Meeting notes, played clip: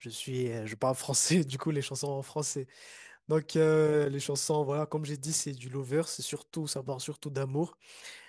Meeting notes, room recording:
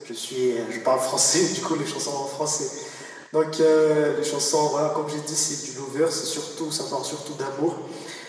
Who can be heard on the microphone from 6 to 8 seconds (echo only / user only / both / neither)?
echo only